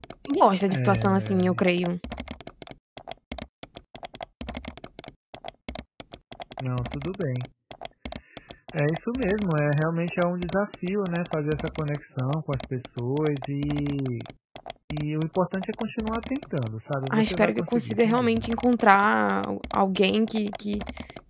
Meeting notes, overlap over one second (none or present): present